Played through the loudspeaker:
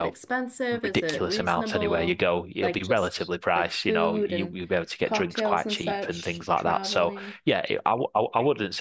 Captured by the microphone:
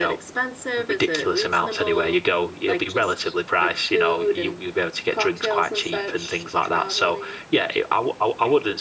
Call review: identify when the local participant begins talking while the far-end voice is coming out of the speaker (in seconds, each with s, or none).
none